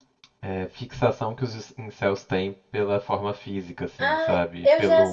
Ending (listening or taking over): taking over